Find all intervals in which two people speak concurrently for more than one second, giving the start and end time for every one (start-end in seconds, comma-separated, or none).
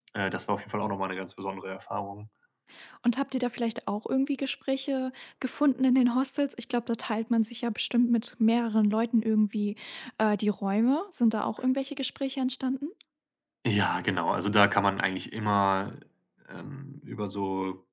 none